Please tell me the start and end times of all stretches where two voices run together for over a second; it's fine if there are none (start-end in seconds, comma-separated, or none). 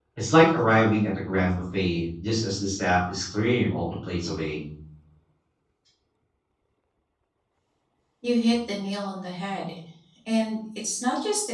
none